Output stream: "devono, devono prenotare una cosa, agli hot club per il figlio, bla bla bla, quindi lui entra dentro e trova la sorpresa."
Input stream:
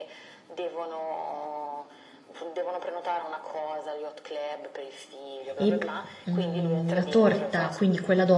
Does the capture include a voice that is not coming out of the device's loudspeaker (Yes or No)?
Yes